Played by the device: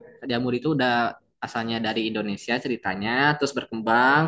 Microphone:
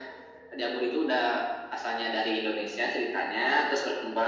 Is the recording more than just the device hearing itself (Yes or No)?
No